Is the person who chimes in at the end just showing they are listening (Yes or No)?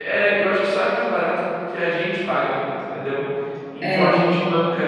Yes